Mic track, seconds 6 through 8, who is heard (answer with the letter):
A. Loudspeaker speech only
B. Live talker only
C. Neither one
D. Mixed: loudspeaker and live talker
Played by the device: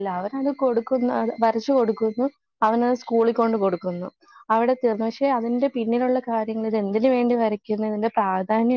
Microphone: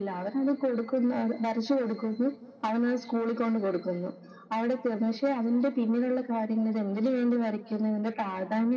A